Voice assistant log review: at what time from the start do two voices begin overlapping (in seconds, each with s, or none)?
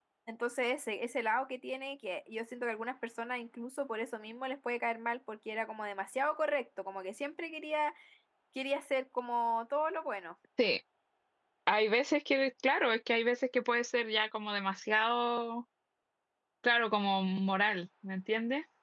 none